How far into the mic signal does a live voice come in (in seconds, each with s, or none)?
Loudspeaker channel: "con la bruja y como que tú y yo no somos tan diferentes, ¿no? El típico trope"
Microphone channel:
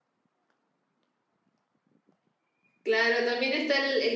2.8 s